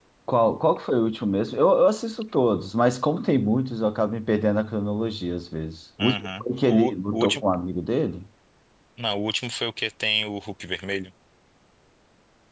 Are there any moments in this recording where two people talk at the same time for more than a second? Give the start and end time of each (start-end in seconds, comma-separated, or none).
6.0-7.5